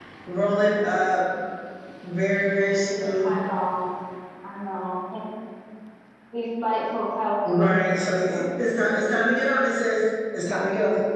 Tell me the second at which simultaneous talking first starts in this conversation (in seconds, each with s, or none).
7.5 s